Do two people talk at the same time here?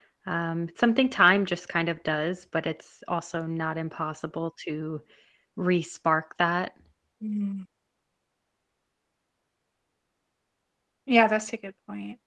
No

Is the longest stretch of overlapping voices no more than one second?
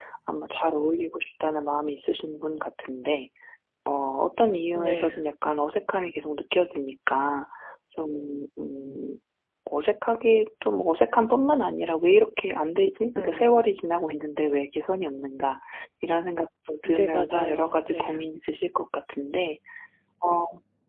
No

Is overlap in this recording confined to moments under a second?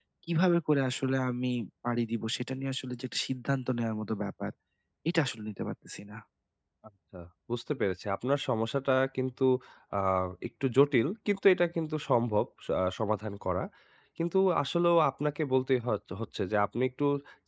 Yes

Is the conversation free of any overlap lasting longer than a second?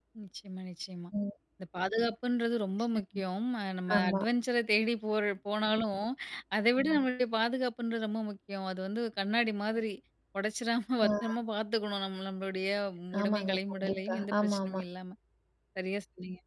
No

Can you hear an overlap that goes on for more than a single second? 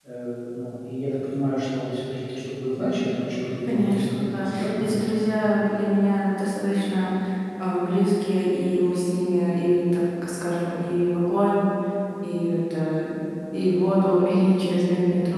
Yes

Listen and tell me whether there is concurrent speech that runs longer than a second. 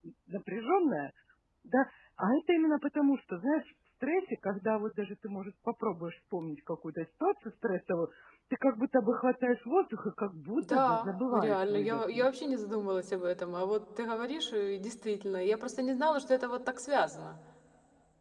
Yes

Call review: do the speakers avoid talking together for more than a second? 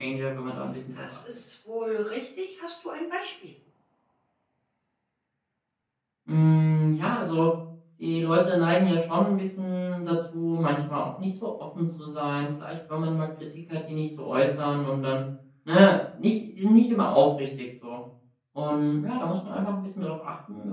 Yes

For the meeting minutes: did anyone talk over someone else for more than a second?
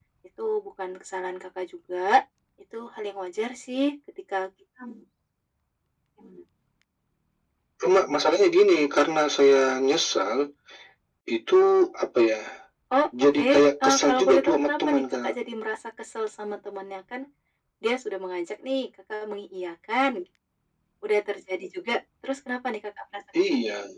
Yes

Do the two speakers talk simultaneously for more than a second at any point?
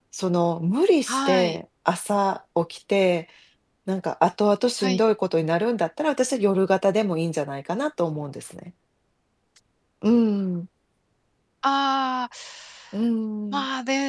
No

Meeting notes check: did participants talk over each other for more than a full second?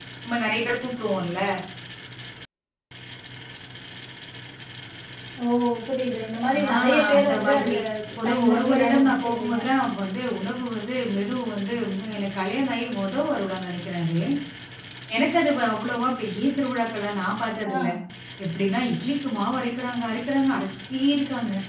Yes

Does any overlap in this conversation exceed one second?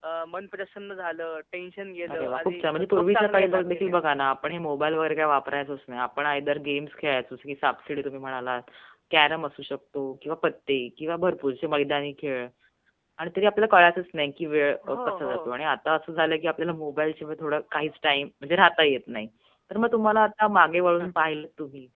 Yes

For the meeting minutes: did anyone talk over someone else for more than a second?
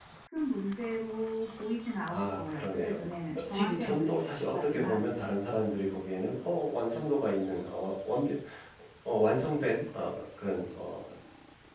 Yes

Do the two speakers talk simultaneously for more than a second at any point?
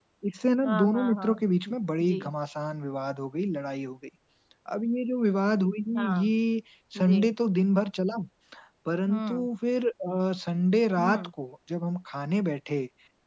Yes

